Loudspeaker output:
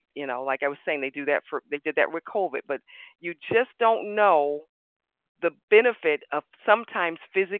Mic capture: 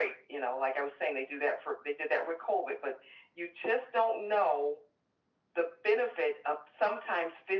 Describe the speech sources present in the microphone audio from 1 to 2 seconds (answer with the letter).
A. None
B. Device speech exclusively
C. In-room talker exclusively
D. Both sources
B